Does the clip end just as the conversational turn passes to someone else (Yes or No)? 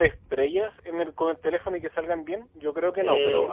Yes